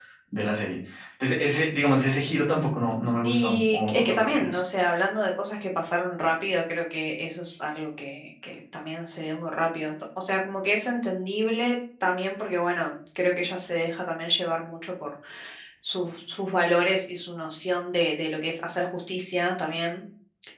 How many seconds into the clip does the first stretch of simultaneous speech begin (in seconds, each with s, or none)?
3.2 s